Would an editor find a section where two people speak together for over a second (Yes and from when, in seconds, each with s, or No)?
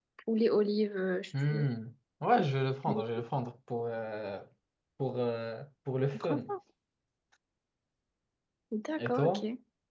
No